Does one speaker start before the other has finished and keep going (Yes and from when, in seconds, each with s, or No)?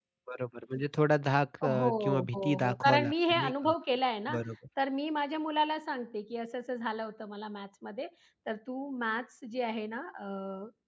Yes, from 1.6 s